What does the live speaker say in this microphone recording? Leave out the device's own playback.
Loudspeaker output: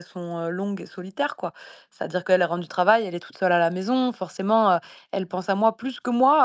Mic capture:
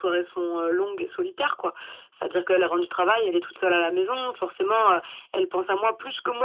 none

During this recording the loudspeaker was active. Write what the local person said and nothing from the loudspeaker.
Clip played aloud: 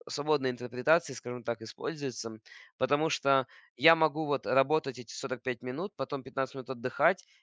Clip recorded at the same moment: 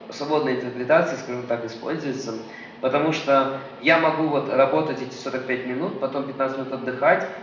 none

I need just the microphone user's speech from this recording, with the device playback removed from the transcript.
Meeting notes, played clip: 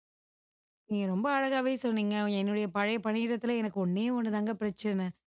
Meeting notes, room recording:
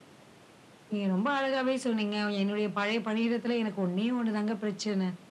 none

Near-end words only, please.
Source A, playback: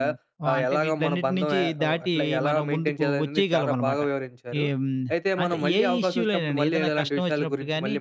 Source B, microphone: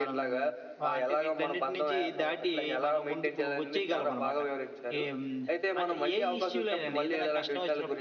none

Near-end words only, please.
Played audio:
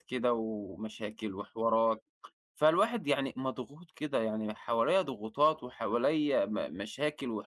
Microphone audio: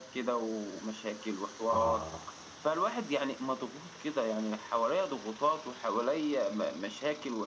آه،

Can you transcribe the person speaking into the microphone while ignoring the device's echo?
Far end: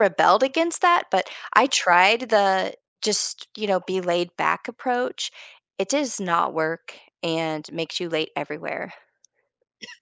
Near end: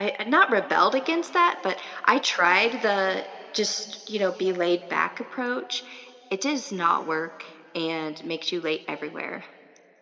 none

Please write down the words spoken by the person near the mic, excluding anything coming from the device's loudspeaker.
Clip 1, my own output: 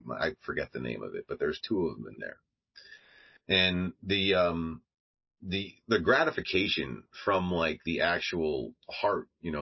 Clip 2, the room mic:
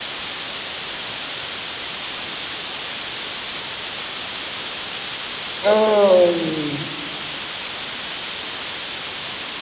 Mm.

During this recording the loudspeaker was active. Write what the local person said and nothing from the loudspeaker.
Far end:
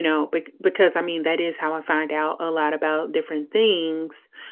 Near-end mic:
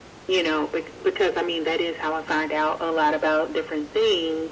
none

